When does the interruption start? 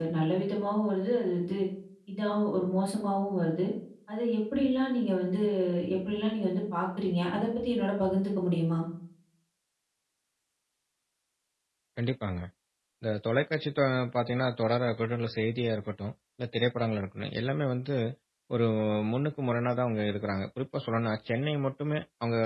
none

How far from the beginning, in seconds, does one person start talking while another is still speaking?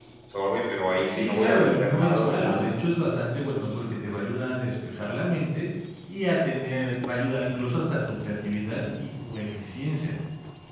1.1 s

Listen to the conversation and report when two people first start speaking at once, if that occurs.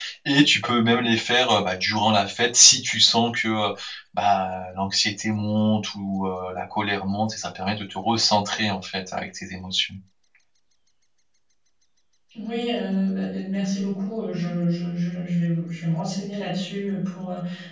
none

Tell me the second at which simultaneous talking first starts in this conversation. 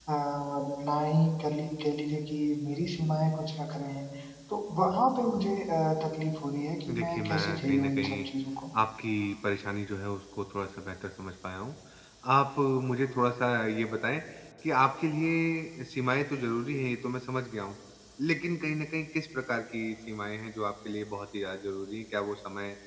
6.9 s

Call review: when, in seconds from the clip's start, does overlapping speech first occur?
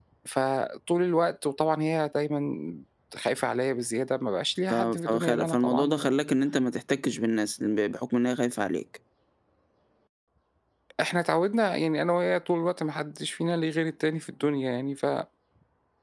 4.7 s

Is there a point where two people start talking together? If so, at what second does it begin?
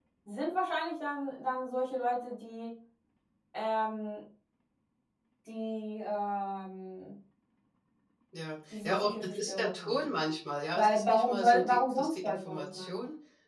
8.7 s

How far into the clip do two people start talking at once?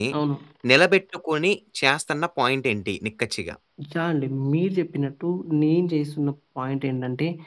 none

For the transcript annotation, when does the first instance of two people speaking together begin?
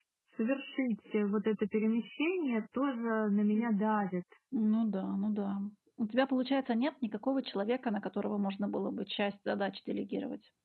none

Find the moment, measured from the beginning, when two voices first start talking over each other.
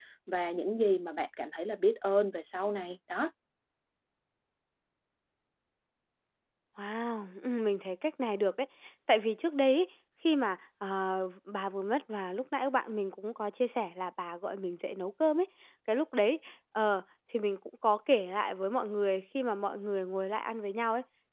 none

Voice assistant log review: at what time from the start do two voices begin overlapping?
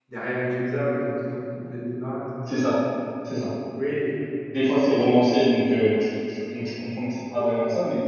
none

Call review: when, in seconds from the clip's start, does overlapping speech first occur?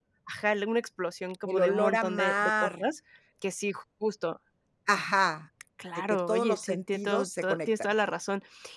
1.4 s

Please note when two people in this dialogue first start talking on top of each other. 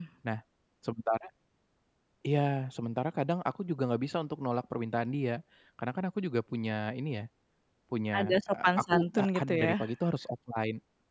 8.2 s

